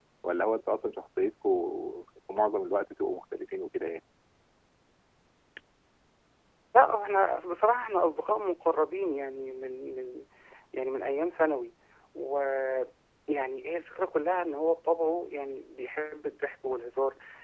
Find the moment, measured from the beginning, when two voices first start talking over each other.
none

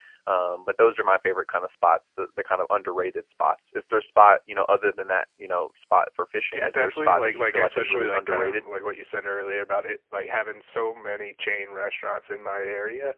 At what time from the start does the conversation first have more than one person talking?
6.5 s

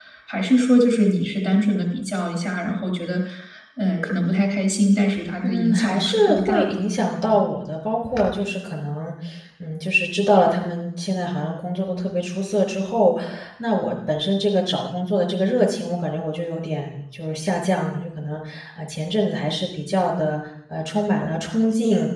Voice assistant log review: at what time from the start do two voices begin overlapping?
5.4 s

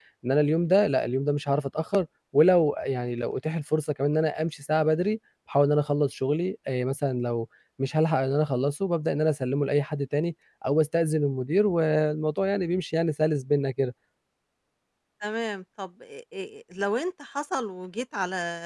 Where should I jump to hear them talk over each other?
none

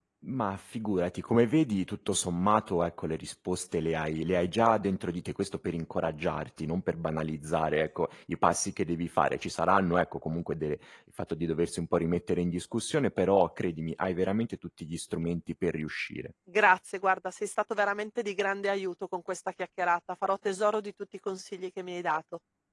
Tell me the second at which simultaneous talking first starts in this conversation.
none

